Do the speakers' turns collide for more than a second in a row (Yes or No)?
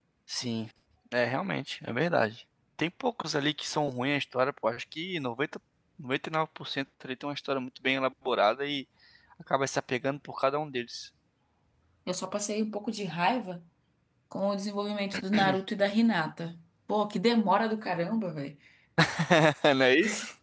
No